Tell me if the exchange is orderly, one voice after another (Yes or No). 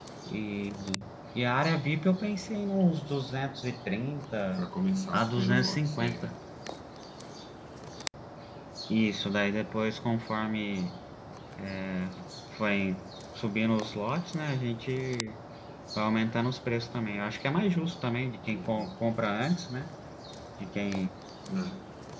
No